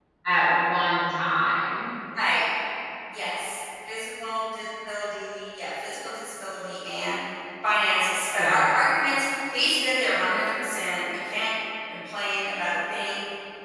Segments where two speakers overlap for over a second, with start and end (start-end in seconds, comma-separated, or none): none